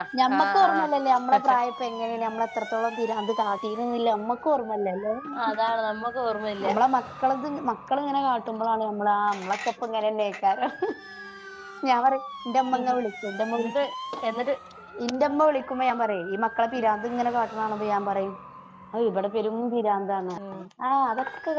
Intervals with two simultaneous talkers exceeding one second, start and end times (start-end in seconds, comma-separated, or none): none